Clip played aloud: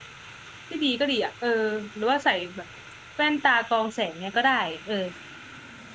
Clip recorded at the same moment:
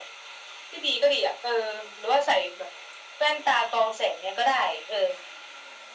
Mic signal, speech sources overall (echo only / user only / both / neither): echo only